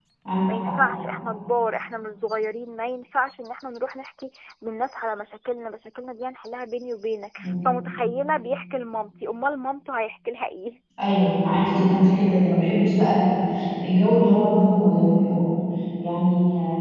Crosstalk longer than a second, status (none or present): none